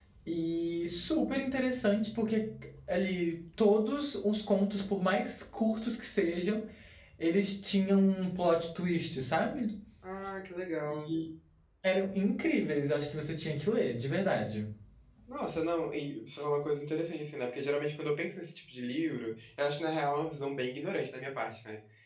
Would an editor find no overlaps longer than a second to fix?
Yes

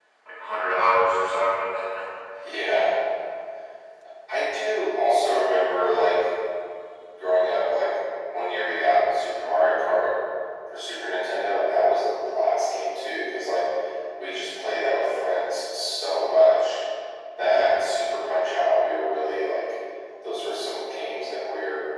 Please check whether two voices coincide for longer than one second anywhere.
No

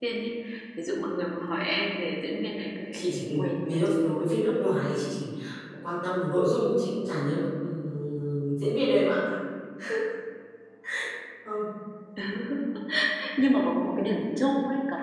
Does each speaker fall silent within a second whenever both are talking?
No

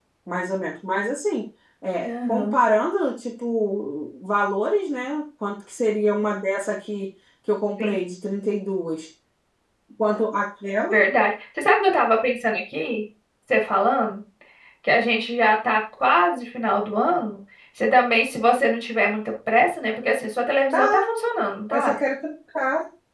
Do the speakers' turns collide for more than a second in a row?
No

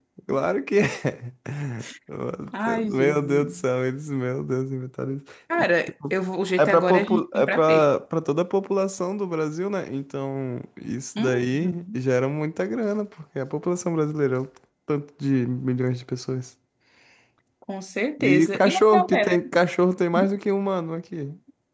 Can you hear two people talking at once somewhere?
Yes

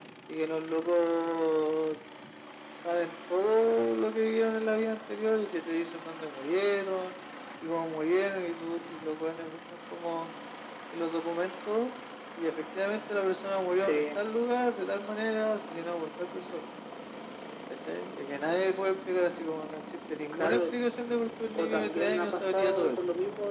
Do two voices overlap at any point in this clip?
Yes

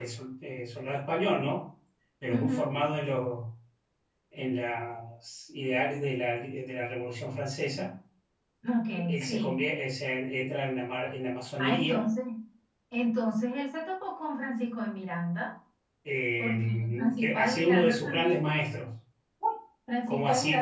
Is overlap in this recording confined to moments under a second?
No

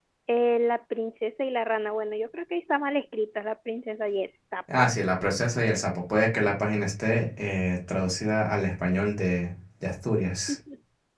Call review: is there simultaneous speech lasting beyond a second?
No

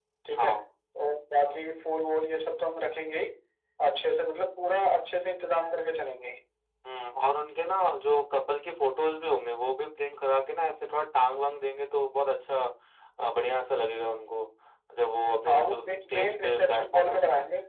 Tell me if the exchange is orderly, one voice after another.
No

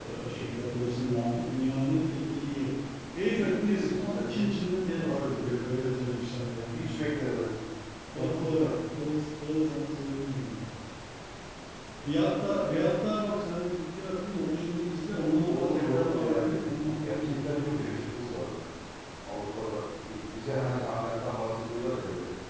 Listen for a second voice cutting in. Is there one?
Yes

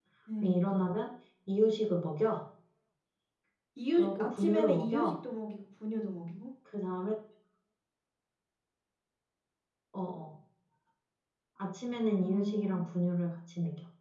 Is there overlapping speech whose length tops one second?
Yes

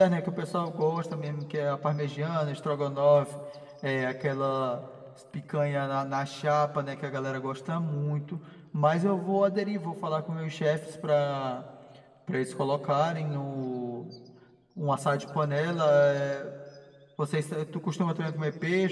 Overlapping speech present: No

